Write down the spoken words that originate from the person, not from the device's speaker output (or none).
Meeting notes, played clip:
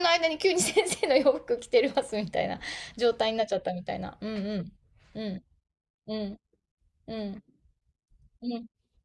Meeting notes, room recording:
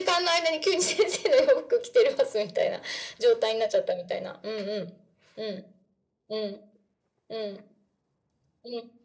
none